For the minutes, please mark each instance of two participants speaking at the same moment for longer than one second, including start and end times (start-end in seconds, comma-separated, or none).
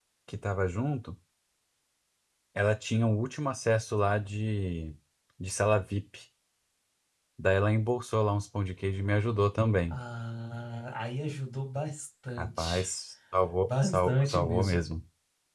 13.7-14.9